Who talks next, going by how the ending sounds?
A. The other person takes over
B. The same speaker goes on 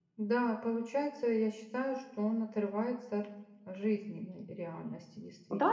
A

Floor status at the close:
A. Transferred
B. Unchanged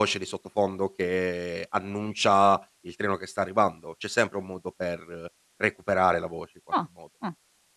A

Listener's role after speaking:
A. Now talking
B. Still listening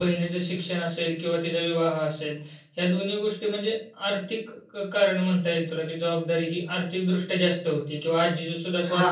B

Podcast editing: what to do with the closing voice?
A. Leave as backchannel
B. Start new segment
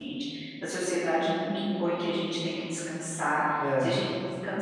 A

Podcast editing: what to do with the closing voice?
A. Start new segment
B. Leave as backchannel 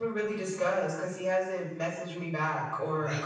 A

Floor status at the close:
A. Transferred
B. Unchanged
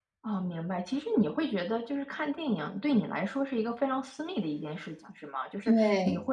B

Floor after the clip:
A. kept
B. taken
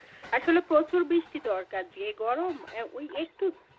A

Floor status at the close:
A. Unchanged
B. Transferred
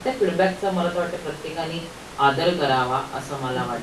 B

